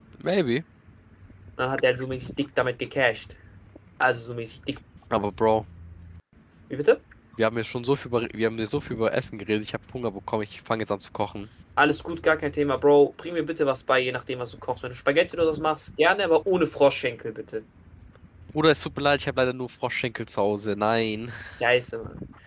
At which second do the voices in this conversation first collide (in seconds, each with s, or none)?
none